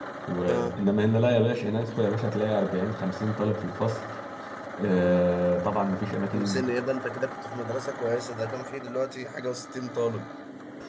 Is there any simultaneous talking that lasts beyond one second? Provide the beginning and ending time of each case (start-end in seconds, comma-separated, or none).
none